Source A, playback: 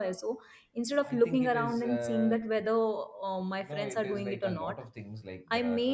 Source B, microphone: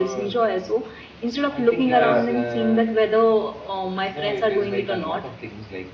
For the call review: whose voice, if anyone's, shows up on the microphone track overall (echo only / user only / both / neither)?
both